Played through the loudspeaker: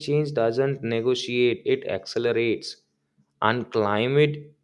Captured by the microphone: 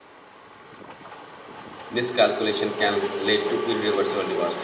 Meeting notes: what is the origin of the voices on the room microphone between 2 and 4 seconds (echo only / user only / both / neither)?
user only